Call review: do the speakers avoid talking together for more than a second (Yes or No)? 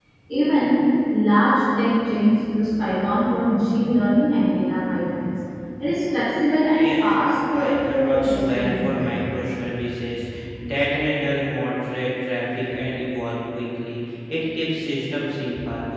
No